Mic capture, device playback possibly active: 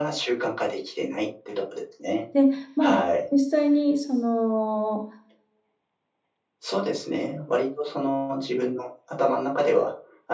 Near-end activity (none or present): present